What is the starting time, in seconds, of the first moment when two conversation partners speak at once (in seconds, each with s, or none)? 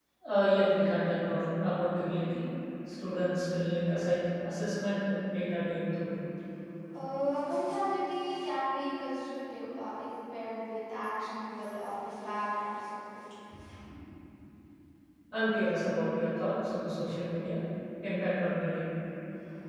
none